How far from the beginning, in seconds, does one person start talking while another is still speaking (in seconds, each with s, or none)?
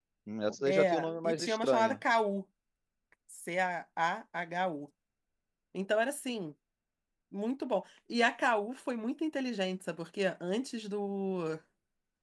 0.6 s